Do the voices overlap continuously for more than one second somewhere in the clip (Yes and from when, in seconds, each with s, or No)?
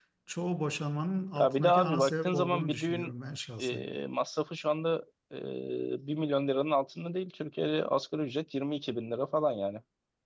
Yes, from 1.4 s